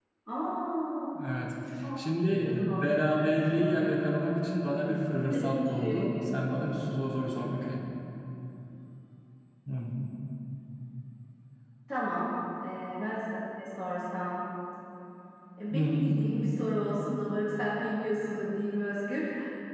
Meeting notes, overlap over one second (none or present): present